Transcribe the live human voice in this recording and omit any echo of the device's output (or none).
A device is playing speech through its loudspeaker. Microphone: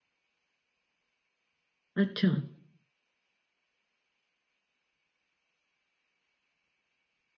अच्छा,